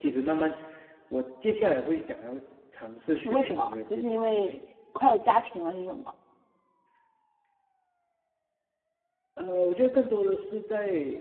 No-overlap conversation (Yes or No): No